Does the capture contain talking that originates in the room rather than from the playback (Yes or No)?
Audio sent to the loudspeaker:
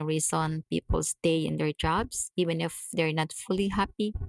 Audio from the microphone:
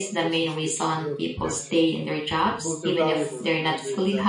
Yes